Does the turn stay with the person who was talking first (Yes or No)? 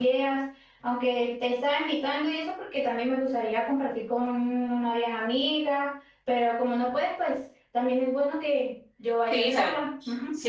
No